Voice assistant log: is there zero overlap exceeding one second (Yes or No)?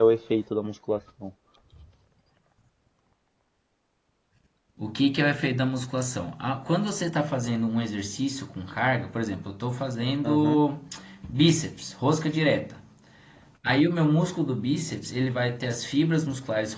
Yes